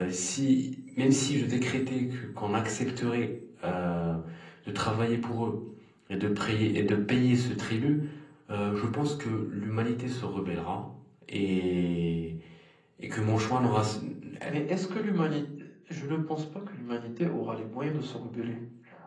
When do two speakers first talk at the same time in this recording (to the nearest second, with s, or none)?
none